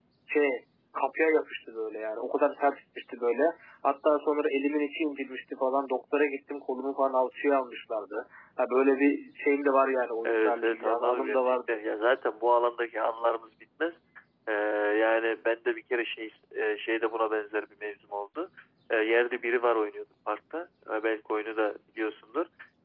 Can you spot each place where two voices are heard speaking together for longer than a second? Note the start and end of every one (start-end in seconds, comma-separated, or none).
10.2-11.8